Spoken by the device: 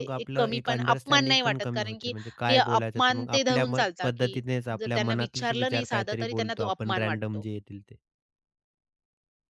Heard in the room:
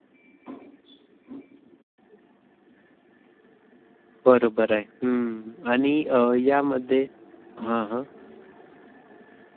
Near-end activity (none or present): present